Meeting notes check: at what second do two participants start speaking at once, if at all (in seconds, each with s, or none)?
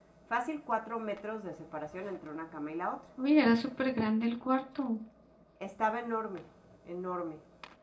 none